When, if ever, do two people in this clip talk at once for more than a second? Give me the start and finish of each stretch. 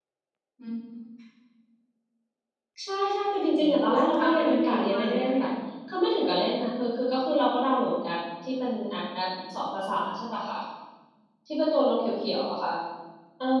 3.5-5.5

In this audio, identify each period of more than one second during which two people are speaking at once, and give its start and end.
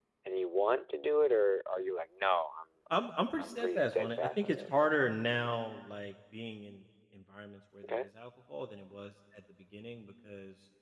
3.4-4.8

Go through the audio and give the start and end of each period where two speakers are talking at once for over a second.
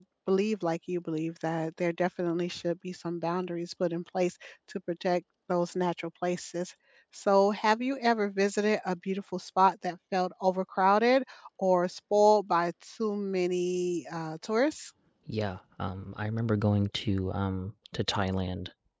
none

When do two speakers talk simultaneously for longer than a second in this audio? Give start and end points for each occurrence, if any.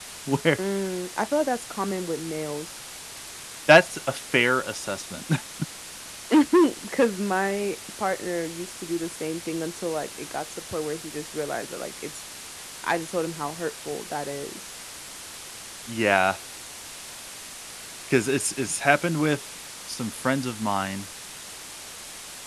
none

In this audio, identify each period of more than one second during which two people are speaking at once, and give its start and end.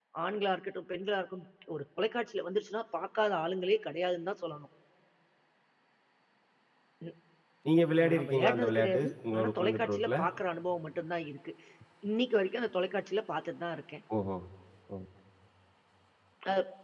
8.1-10.2

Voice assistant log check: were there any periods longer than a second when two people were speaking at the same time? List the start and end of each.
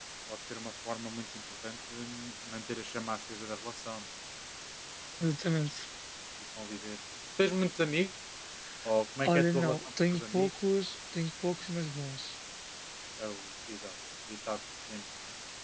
9.2-10.5

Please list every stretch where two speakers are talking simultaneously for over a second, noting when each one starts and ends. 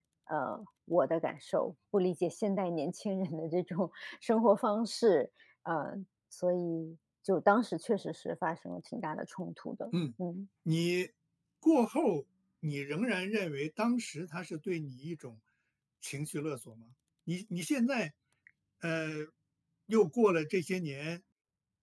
none

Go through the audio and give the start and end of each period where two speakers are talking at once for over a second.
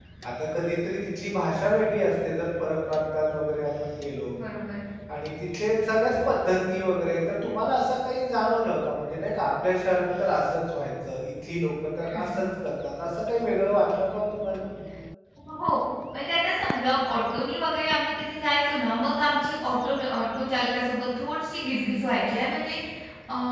none

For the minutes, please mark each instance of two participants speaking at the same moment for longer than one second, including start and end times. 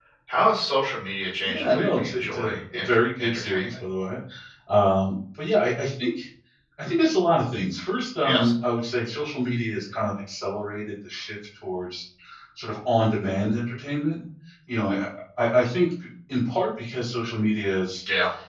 1.4-3.7

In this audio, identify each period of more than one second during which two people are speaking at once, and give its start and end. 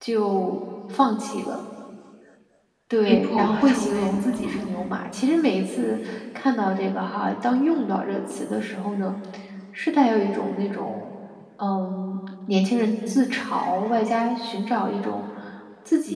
3.0-4.9

